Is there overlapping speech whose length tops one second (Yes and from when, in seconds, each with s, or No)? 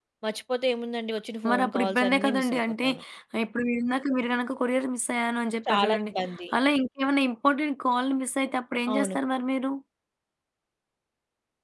Yes, from 1.5 s